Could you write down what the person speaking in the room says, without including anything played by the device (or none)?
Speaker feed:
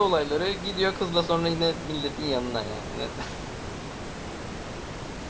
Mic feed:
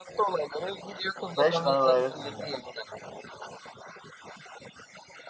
Beş tane dairesiniz yani.